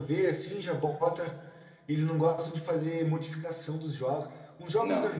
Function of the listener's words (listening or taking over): listening